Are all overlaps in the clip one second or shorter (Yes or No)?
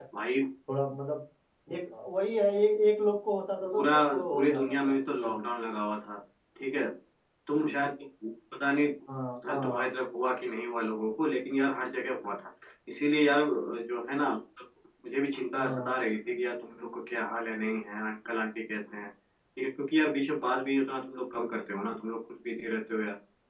No